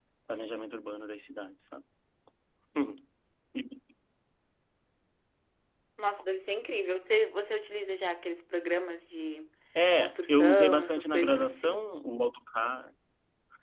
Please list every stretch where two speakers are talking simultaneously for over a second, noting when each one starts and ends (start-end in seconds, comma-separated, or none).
10.0-11.9